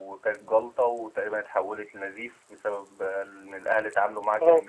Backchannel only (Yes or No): Yes